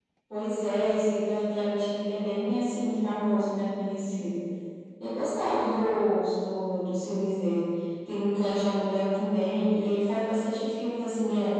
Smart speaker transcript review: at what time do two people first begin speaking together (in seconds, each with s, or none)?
none